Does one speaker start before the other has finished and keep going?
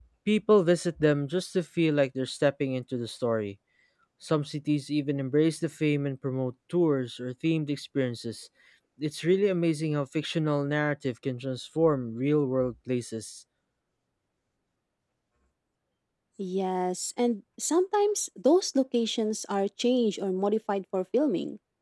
No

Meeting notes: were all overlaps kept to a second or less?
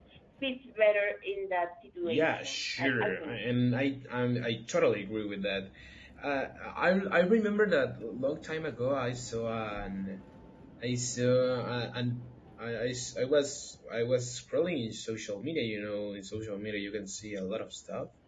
No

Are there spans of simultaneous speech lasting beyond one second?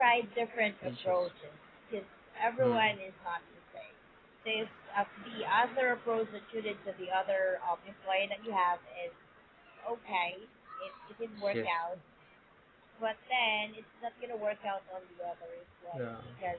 No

